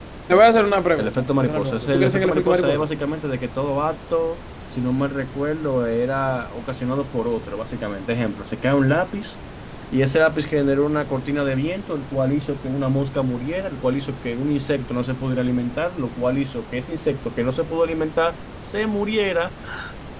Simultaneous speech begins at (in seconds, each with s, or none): 1.0 s